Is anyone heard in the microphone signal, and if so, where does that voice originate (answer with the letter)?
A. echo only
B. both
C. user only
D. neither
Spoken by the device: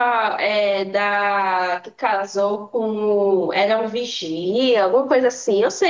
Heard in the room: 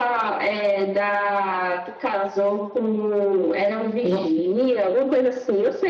B